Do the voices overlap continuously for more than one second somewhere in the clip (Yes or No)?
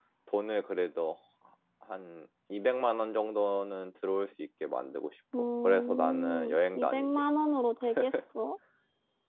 Yes